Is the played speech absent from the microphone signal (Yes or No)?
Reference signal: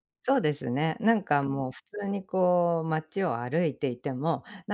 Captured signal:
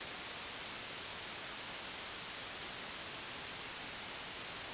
Yes